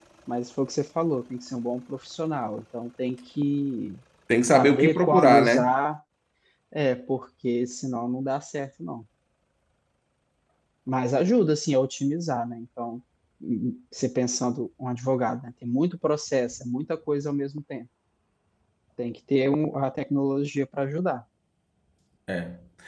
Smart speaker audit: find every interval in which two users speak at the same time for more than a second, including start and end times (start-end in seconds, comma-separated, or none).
4.4-5.7